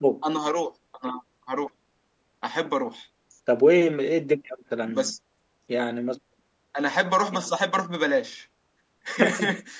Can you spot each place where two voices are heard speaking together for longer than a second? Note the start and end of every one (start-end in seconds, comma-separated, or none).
none